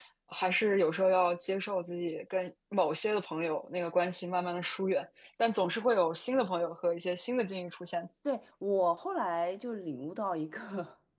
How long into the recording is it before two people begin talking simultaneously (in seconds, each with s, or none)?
none